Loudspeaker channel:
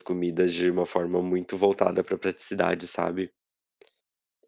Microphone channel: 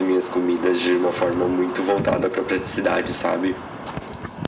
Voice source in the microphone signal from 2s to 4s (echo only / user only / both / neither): echo only